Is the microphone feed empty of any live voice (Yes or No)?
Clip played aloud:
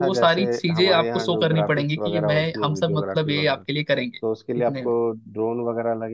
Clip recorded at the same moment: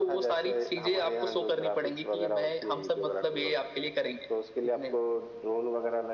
Yes